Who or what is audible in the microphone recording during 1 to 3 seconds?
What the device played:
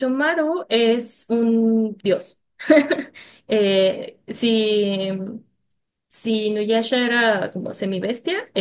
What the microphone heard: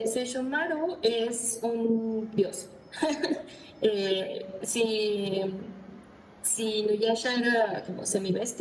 echo only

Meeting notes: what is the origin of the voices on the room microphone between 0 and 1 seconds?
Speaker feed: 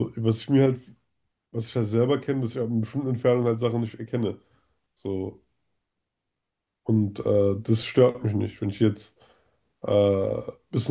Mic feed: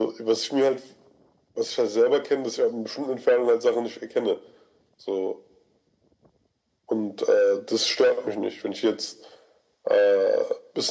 echo only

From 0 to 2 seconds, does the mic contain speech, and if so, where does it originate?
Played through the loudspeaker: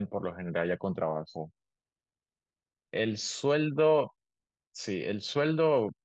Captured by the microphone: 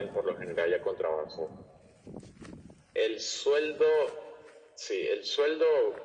echo only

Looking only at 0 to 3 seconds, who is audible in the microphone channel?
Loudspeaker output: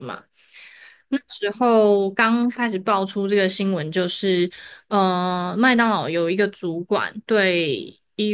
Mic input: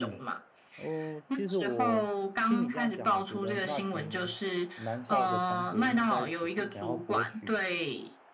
both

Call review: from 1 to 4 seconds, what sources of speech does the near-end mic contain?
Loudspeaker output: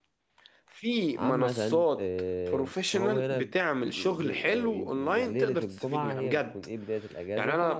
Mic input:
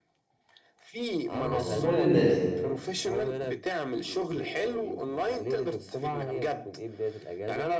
both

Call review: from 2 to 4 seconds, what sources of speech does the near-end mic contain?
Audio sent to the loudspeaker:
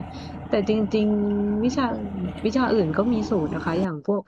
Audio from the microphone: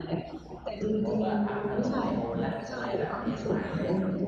both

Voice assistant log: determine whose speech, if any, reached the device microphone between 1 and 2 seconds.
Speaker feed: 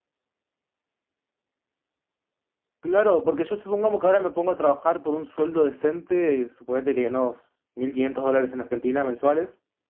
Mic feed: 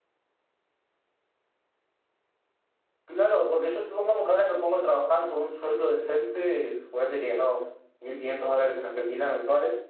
neither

